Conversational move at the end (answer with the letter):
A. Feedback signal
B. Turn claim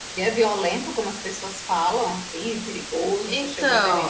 B